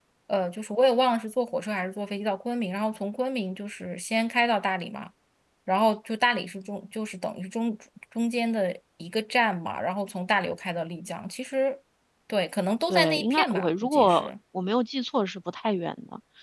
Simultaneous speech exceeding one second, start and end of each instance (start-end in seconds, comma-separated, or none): 12.9-14.3